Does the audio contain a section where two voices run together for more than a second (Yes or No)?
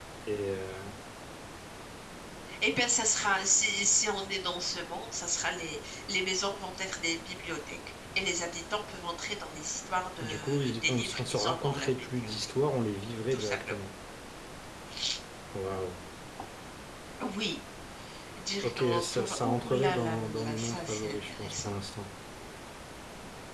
Yes